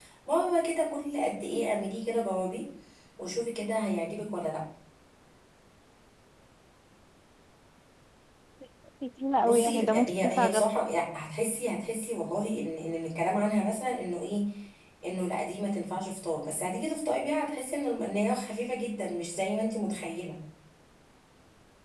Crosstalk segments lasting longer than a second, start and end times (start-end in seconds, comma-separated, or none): 9.4-10.7